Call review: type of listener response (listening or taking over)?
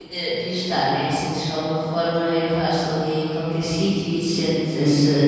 taking over